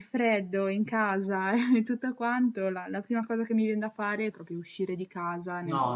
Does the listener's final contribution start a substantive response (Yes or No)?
Yes